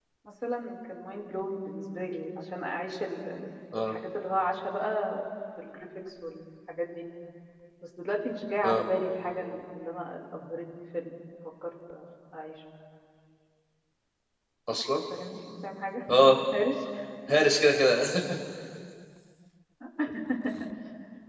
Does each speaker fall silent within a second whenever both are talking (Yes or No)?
Yes